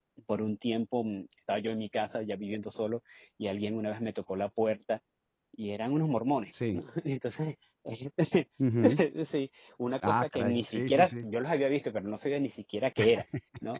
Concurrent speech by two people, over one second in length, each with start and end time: 10.1-11.3

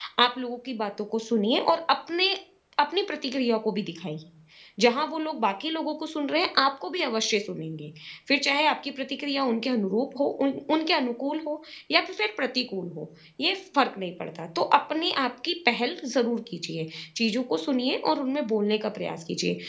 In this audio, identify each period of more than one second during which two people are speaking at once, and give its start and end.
none

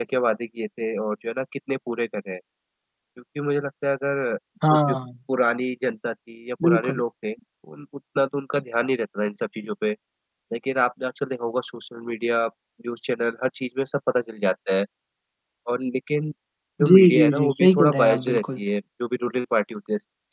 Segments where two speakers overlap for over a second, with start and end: 16.9-18.6

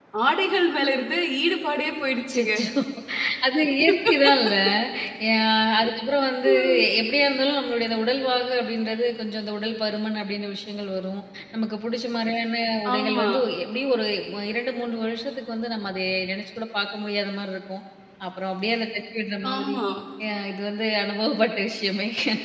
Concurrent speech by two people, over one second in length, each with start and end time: none

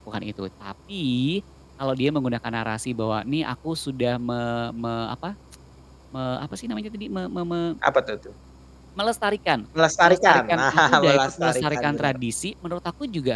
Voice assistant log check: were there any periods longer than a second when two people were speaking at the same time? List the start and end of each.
10.0-12.1

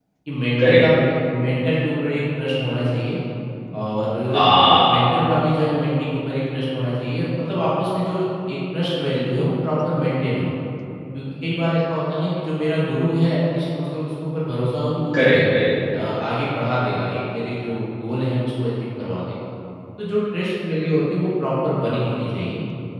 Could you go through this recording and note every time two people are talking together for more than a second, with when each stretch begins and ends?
none

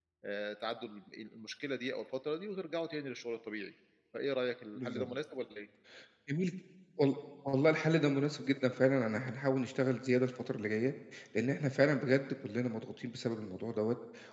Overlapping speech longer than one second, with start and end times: none

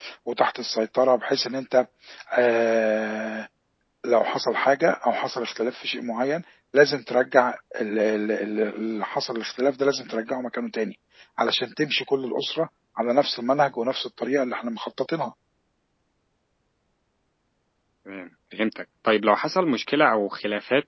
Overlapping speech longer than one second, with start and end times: none

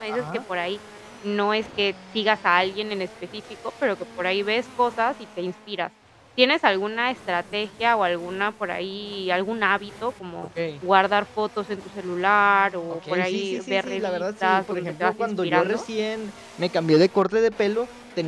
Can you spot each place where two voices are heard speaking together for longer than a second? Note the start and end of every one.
12.9-15.8

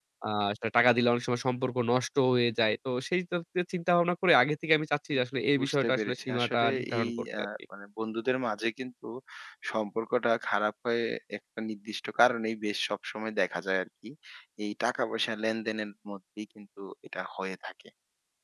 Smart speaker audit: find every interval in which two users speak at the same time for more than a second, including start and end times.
5.6-7.5

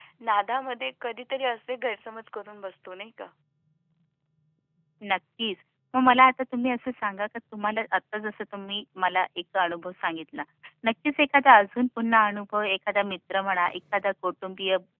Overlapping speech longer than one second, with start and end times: none

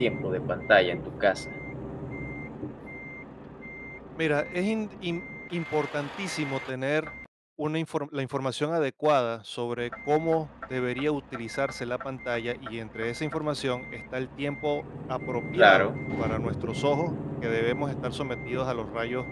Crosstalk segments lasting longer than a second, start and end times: none

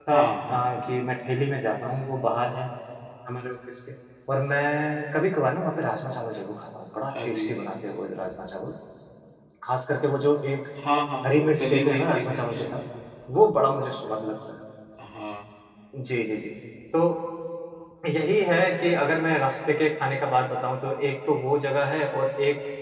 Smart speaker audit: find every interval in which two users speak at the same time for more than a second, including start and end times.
11.2-12.6

